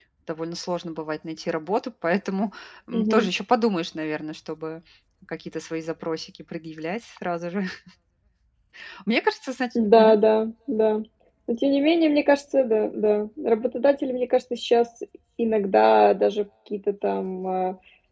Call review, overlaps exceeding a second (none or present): none